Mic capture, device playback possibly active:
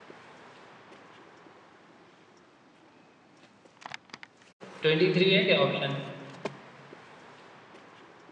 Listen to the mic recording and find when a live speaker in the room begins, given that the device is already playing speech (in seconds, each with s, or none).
4.8 s